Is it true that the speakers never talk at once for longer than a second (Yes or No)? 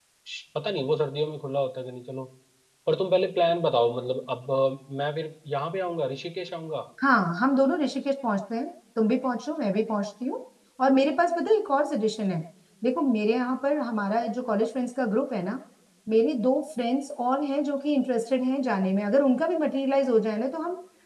Yes